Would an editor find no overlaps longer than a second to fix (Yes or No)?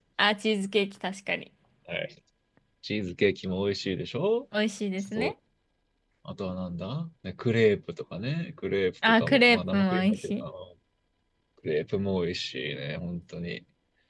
No